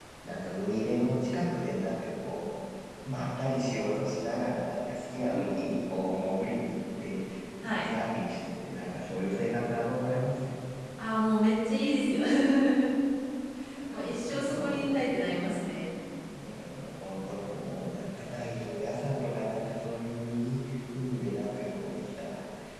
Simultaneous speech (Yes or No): Yes